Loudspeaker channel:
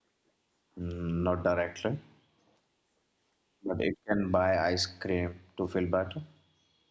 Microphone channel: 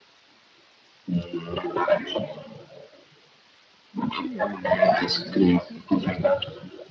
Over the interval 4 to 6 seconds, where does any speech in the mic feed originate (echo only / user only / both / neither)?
both